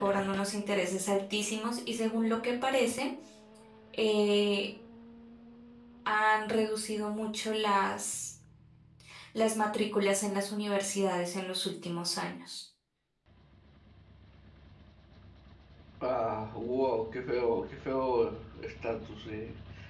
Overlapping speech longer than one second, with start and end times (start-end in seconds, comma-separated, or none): none